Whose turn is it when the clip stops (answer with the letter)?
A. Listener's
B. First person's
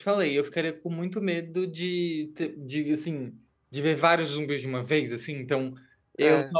B